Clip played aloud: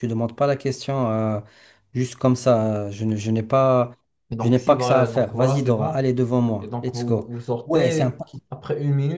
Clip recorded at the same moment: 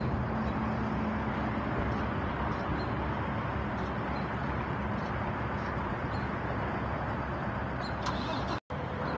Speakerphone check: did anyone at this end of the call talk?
No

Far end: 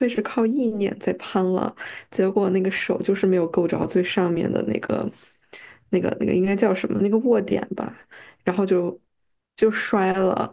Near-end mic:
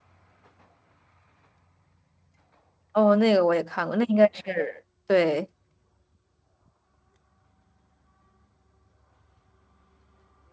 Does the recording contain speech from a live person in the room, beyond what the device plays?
Yes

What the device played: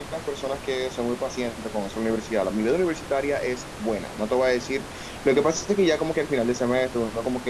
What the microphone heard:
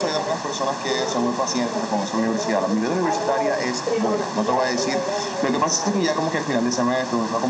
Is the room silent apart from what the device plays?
No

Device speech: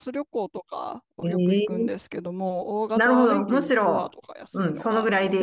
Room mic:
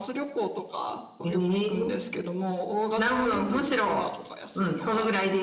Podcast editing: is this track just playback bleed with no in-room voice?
Yes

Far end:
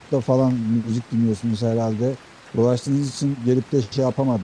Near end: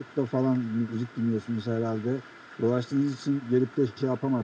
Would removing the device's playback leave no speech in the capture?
Yes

